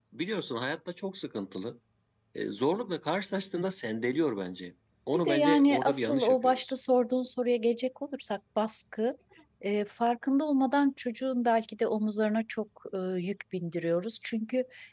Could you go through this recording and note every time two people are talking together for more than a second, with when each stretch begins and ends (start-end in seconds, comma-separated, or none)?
5.1-6.7